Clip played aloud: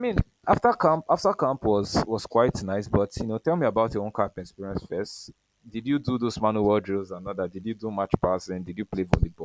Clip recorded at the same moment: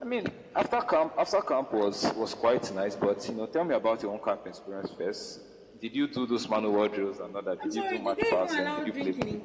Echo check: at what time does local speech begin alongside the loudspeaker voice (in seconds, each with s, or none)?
7.6 s